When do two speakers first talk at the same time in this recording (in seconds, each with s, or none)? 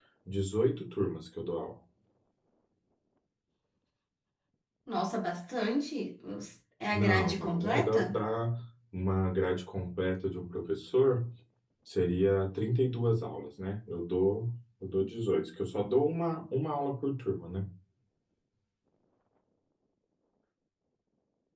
6.9 s